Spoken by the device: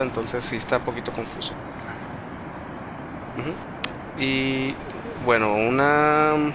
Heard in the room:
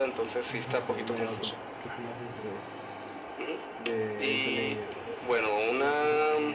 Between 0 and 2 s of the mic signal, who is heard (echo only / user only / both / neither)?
both